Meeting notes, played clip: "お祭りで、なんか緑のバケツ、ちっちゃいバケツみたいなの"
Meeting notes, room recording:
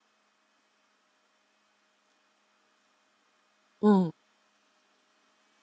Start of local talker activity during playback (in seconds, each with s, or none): 3.8 s